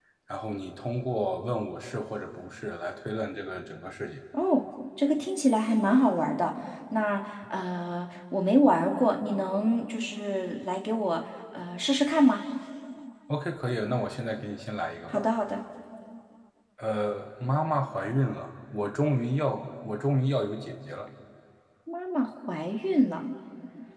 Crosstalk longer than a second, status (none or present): none